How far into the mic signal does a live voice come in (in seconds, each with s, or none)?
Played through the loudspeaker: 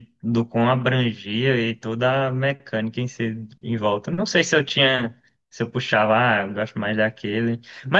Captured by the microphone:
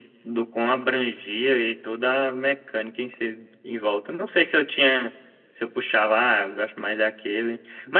none